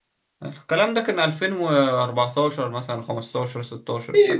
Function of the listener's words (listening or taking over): taking over